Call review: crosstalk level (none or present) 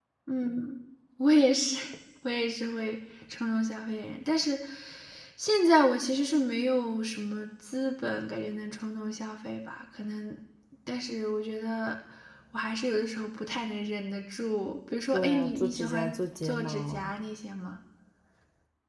present